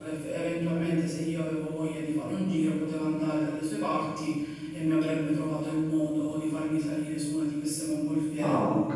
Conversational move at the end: listening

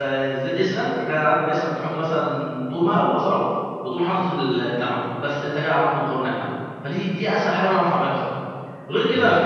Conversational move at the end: listening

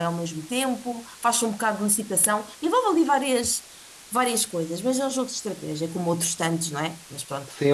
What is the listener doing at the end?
taking over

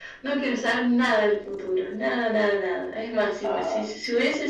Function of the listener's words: listening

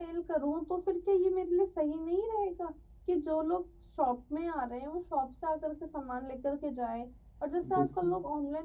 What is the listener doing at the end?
listening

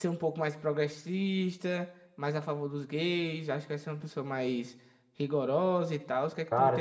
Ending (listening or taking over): taking over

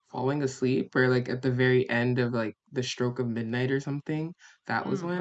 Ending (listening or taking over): taking over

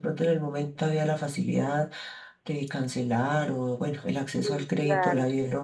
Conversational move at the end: listening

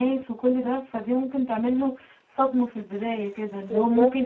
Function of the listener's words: listening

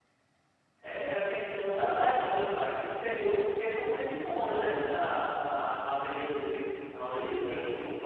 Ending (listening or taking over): listening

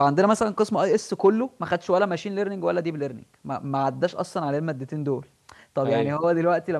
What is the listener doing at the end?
listening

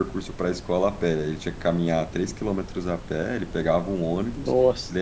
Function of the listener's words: listening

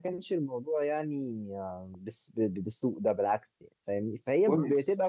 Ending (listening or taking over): listening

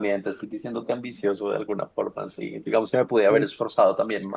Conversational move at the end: listening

